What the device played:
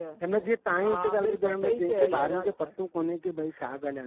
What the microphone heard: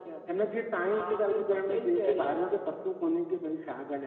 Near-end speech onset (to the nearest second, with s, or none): none